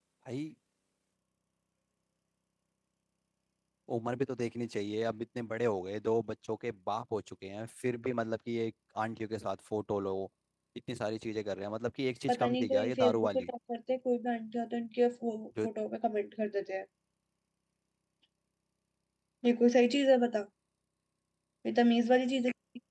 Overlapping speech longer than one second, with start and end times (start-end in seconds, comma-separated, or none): 12.3-13.5